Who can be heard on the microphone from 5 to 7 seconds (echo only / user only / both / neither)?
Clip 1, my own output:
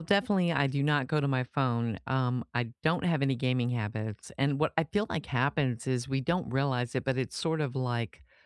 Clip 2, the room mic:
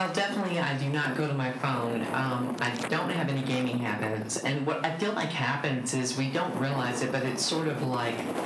echo only